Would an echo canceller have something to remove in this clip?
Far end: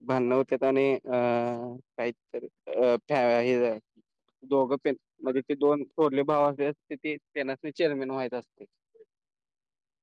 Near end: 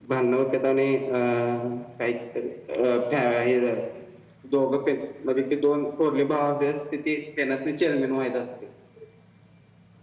Yes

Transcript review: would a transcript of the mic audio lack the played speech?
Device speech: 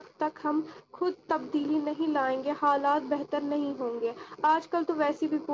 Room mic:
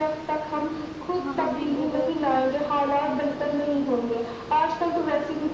No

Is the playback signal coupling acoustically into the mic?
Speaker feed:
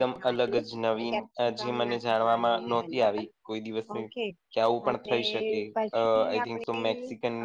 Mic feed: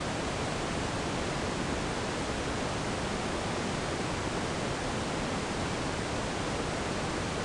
No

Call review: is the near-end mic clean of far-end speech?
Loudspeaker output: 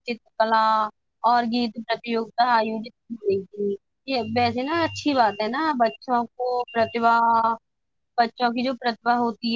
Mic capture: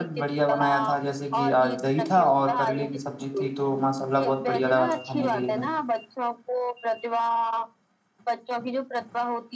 No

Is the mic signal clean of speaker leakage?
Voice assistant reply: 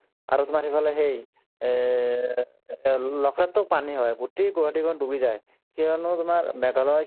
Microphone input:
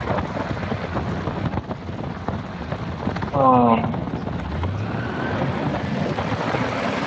Yes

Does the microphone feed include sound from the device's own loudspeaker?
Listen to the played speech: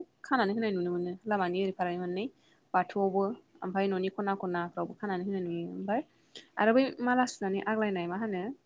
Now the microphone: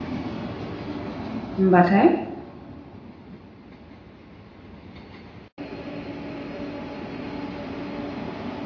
No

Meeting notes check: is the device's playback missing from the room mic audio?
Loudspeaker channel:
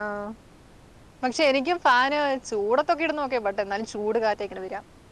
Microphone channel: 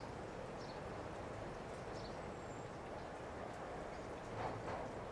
Yes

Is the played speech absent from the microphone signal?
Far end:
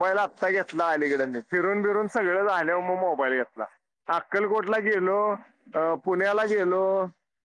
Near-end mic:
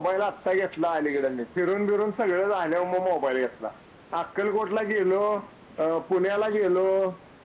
No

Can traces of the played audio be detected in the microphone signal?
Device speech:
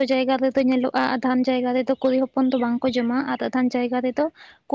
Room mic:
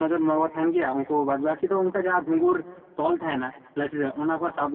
No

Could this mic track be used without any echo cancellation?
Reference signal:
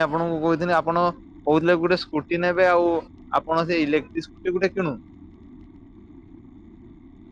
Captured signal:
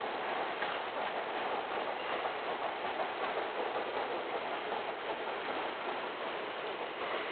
Yes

